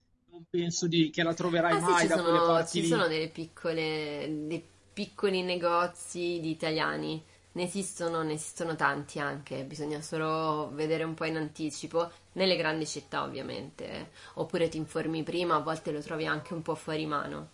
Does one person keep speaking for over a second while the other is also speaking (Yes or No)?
Yes